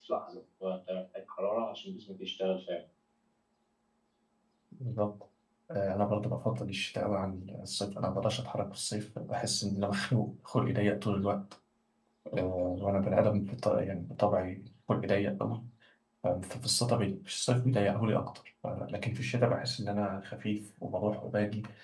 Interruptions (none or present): none